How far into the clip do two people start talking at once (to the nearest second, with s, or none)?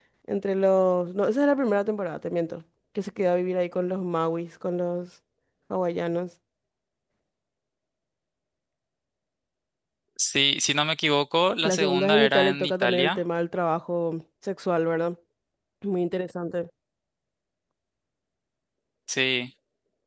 12 s